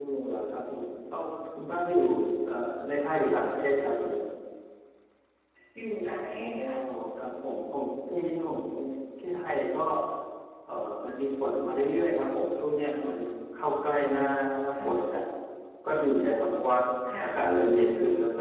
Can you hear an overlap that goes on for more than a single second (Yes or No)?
No